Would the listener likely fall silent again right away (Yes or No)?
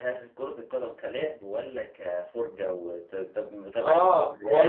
No